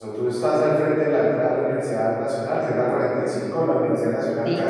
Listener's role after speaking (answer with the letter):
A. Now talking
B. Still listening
B